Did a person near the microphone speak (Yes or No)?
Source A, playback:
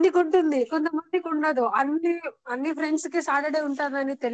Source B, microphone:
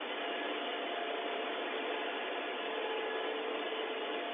No